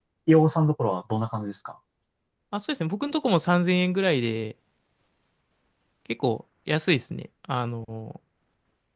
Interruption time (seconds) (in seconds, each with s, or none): none